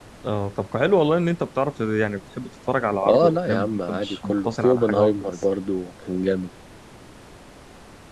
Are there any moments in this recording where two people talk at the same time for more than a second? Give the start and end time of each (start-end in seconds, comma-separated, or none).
3.1-5.2